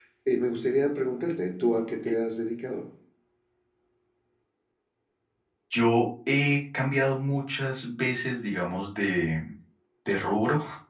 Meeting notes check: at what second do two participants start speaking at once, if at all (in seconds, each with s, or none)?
none